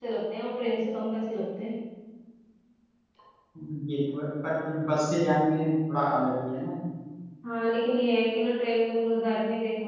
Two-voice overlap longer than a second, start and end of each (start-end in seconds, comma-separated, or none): none